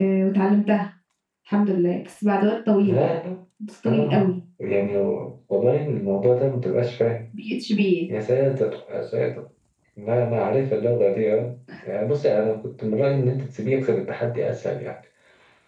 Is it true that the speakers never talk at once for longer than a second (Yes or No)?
Yes